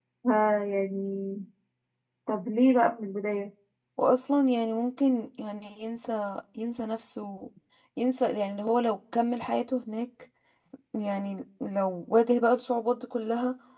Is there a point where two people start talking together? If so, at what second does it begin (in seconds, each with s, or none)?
none